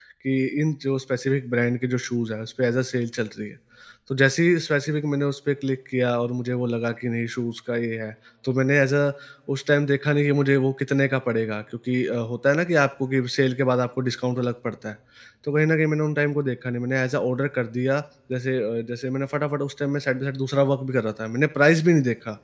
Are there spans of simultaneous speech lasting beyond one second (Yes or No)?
No